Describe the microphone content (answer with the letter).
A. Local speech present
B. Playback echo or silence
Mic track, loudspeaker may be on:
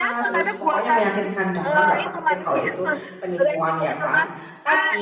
A